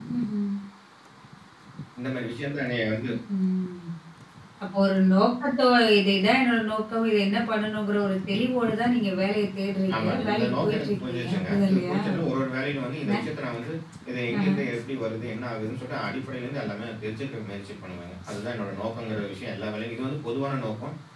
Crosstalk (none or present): present